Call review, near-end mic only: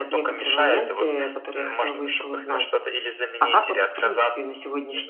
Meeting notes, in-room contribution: present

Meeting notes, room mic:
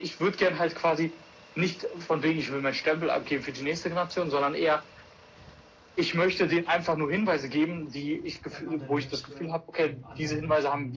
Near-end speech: present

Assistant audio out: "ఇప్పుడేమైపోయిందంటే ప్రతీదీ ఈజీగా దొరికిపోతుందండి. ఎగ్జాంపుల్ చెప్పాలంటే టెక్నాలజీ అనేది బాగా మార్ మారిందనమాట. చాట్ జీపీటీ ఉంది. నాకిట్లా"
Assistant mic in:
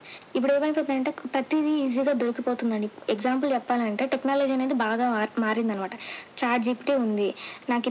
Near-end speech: none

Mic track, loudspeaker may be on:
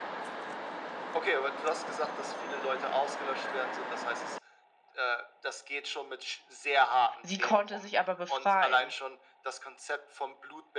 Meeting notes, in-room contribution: present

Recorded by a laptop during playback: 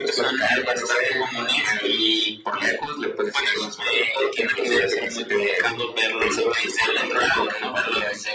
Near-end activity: none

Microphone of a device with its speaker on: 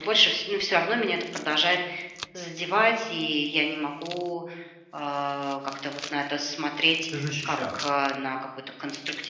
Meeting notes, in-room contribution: present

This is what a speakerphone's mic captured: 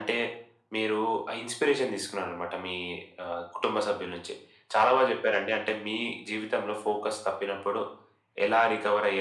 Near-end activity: none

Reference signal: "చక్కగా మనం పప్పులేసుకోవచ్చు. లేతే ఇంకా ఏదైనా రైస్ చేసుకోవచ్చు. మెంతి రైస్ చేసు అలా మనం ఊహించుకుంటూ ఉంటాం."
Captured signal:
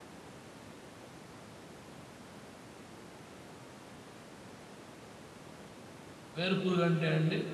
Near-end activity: present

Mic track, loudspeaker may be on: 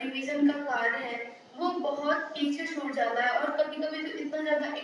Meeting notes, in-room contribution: none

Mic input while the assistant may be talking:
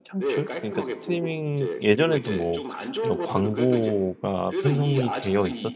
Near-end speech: present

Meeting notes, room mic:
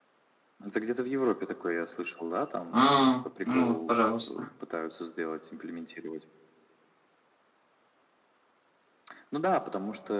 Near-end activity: present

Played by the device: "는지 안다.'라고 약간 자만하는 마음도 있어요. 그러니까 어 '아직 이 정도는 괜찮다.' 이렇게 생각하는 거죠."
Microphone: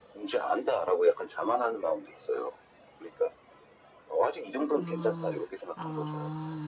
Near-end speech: present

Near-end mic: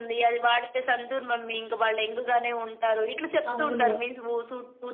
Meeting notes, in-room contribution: present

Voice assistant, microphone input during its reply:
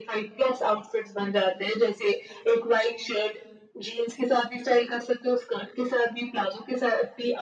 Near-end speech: none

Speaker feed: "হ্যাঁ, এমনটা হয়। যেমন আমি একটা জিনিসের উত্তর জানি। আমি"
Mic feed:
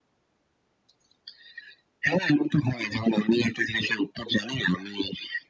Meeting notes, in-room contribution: none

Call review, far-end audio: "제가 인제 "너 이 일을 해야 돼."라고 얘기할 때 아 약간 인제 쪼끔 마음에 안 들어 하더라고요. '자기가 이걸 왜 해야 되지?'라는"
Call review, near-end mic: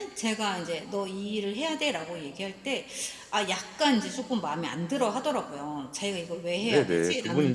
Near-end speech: present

